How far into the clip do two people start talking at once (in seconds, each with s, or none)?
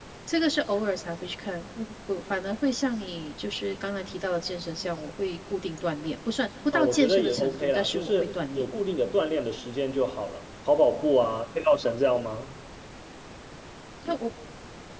6.7 s